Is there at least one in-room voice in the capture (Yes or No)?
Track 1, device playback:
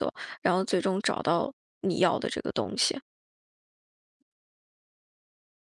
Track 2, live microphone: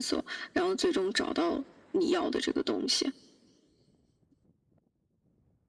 No